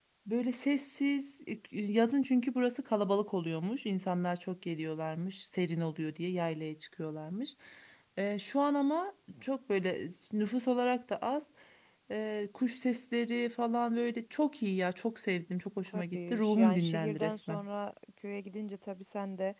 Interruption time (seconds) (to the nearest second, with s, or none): 16 s